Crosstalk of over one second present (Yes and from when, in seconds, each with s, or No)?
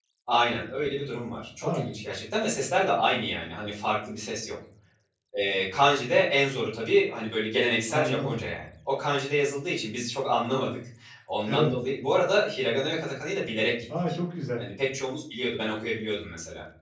No